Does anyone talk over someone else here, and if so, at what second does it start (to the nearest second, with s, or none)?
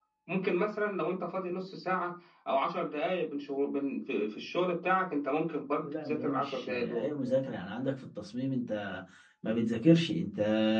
6 s